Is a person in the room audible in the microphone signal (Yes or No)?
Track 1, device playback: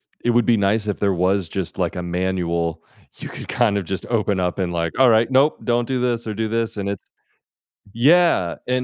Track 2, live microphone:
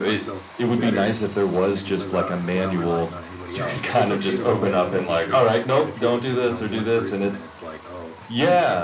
Yes